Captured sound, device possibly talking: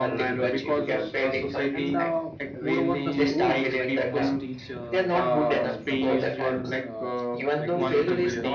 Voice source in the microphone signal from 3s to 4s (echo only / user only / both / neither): both